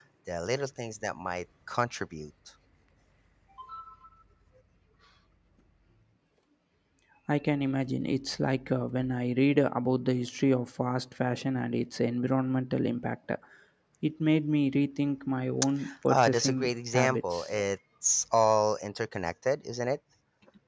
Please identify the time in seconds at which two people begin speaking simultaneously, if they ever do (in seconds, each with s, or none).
16.1 s